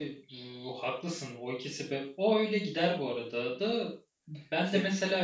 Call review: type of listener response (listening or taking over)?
listening